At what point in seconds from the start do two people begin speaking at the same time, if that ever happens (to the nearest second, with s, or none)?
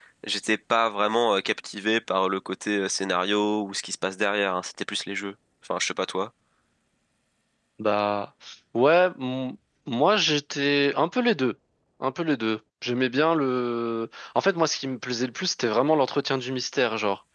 none